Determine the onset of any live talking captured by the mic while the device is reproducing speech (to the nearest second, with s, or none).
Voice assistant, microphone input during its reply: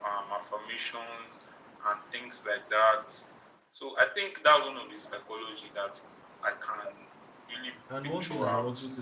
8 s